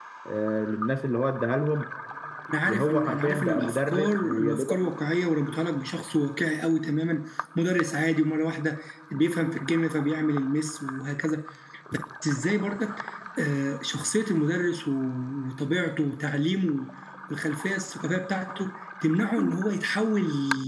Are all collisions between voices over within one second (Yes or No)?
No